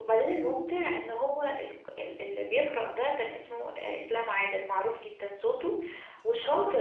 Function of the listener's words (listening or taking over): listening